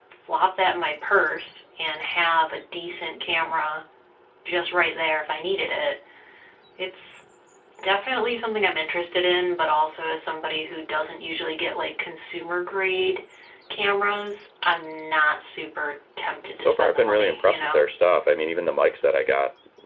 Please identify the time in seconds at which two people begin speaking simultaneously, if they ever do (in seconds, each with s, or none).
16.5 s